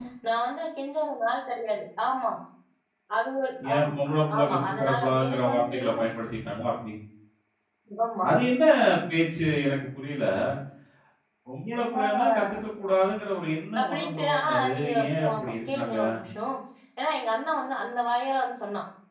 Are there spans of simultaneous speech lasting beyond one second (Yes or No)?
Yes